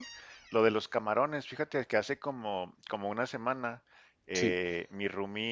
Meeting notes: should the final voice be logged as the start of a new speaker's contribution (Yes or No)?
No